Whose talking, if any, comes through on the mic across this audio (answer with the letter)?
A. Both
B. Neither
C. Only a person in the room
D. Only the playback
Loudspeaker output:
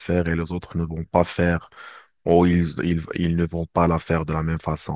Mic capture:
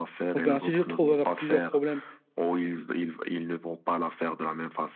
A